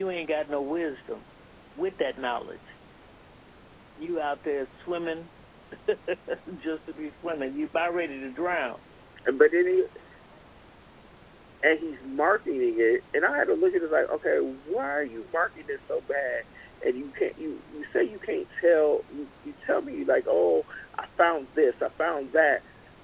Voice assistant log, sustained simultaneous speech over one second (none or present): none